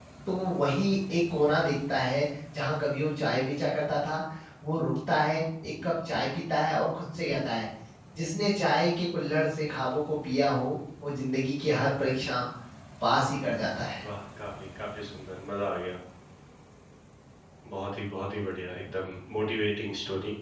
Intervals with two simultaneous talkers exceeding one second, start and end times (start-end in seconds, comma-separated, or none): none